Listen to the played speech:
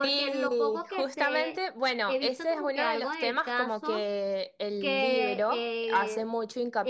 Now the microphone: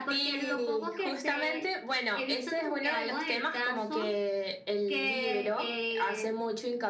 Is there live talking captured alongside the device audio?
No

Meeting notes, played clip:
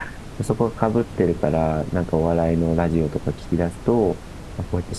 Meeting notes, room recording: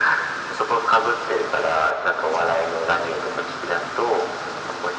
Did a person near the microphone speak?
No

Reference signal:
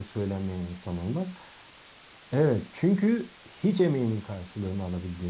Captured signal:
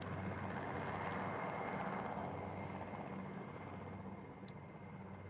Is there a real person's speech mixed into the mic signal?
No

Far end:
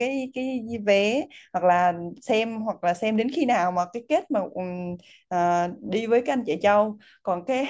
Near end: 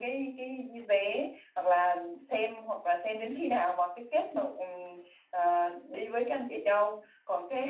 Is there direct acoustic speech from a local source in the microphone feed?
No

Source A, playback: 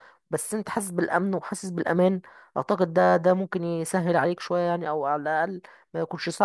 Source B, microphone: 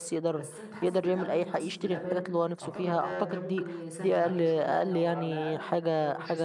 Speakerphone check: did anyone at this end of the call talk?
Yes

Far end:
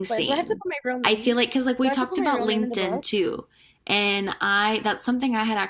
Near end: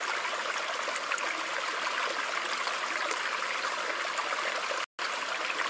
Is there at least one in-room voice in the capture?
No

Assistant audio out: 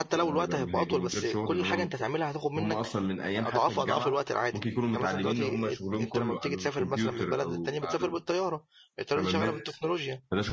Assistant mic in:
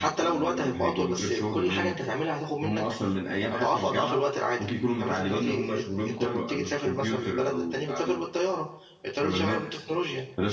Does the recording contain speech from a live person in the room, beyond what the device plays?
No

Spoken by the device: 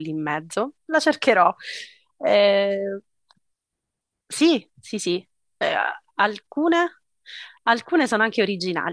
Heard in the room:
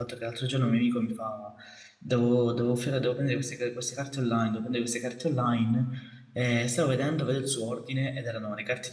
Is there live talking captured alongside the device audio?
Yes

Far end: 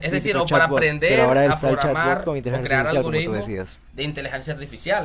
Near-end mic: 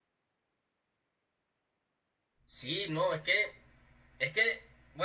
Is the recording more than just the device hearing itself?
Yes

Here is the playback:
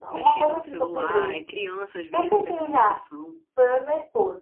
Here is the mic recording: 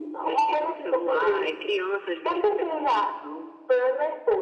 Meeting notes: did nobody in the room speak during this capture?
Yes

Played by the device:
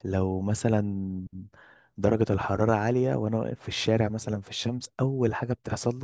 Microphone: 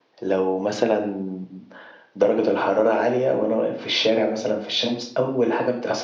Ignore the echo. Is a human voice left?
No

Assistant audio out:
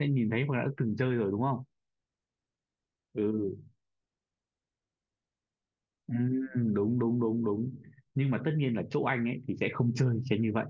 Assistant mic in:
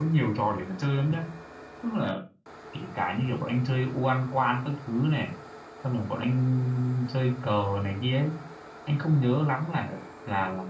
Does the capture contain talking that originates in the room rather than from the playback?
Yes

